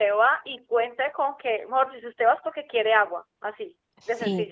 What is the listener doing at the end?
taking over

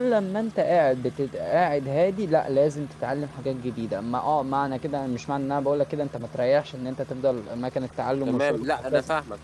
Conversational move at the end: taking over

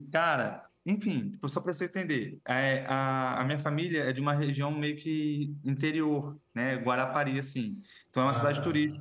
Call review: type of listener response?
listening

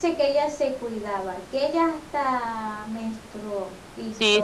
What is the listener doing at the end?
taking over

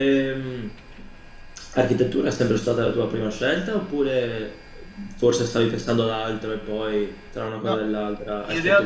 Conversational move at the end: taking over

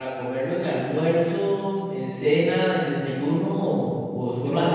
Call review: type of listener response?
taking over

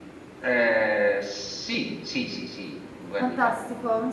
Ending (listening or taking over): taking over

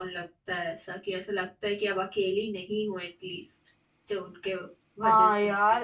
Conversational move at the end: taking over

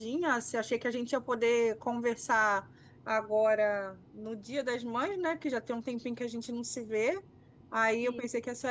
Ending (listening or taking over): listening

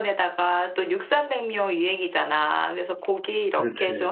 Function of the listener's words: listening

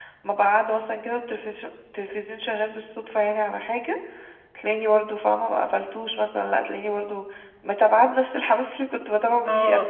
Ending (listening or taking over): taking over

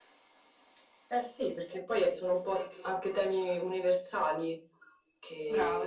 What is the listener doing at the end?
listening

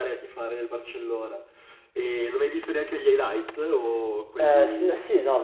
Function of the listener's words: taking over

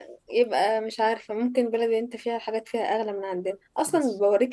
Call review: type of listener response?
listening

